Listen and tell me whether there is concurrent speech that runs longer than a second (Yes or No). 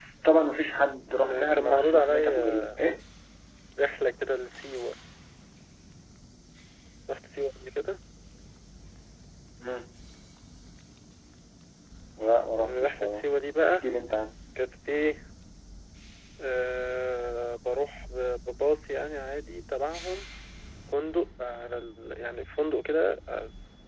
Yes